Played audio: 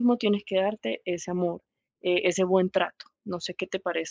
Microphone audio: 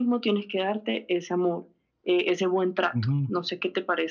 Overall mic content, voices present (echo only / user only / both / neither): both